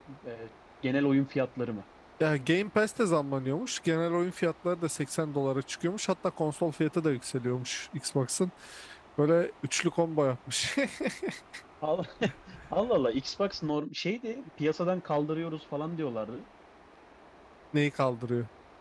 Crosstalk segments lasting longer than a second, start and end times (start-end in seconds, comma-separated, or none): none